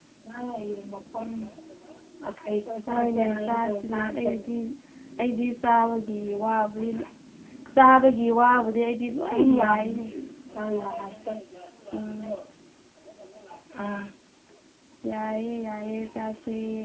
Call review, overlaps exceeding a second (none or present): present